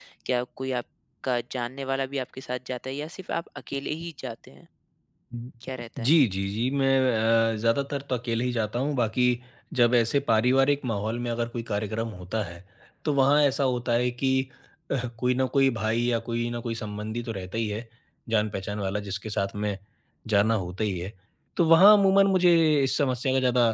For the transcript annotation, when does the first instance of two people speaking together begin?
none

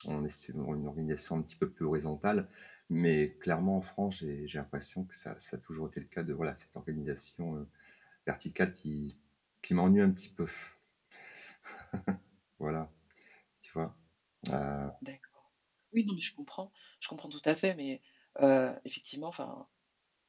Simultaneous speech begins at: none

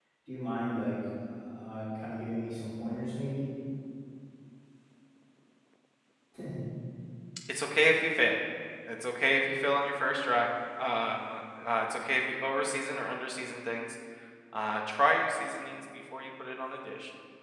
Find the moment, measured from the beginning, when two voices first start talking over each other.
none

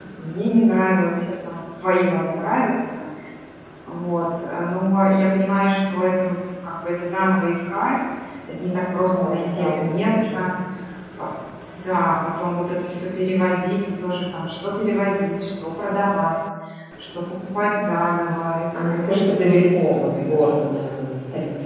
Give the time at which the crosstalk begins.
9 s

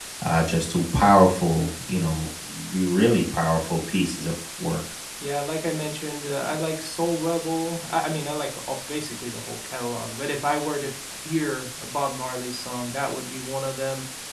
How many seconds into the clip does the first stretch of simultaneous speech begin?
none

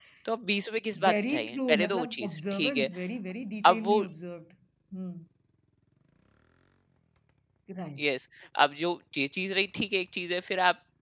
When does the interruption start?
1 s

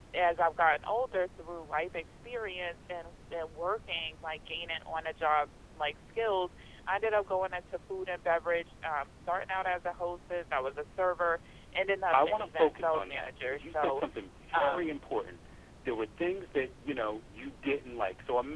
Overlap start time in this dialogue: 12 s

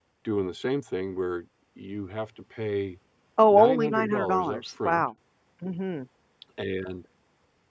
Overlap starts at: 4 s

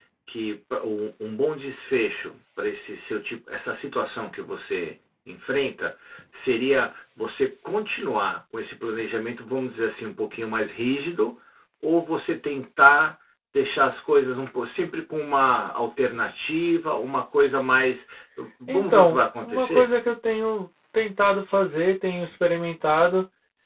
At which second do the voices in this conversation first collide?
19 s

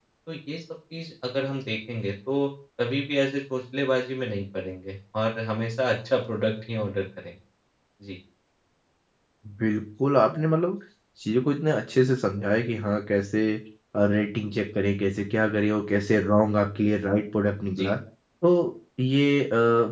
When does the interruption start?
none

